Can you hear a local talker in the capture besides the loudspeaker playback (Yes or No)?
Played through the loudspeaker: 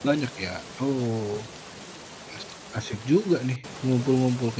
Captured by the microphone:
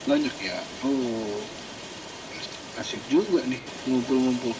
No